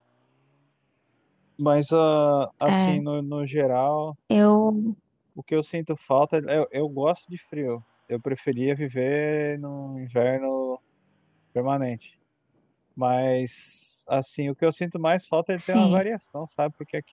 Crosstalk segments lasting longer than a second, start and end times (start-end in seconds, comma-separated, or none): none